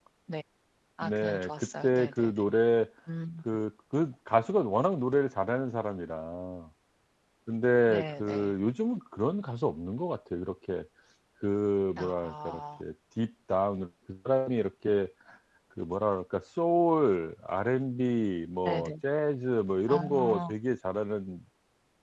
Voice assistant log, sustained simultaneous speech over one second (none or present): present